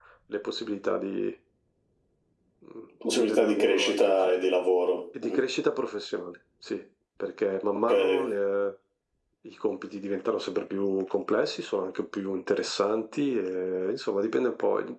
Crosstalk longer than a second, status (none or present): present